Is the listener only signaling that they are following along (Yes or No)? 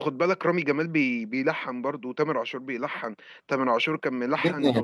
No